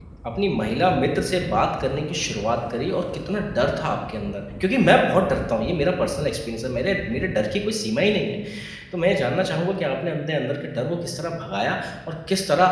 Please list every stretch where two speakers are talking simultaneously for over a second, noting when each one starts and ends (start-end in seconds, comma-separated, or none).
none